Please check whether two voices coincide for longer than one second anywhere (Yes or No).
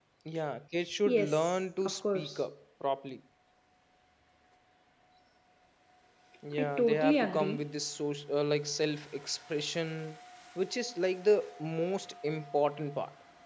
Yes